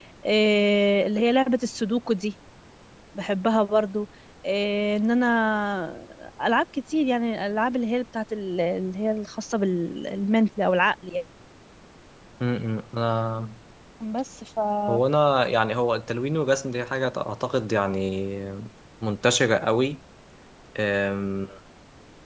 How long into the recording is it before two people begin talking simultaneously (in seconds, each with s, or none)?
none